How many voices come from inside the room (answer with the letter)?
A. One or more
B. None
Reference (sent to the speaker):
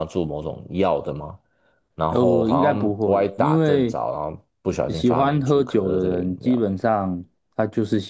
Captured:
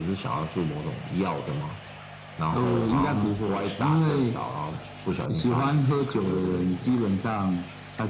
B